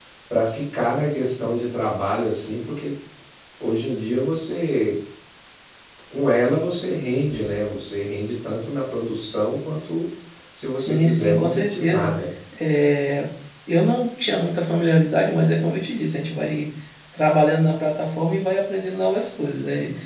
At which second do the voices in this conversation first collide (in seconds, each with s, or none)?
10.8 s